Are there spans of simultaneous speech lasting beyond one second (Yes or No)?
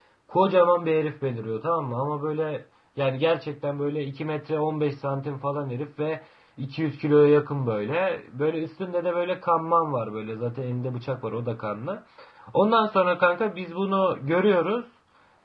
No